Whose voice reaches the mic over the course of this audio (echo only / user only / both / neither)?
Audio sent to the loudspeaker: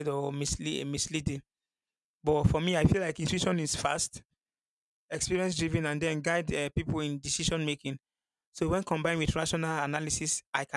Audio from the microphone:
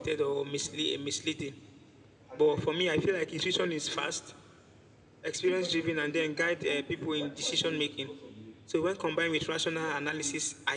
both